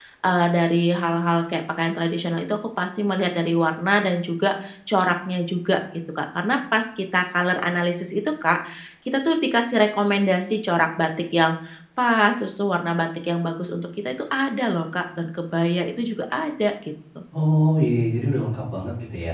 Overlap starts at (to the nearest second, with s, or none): none